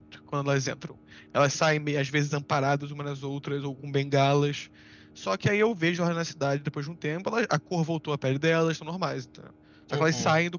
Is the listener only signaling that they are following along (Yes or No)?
Yes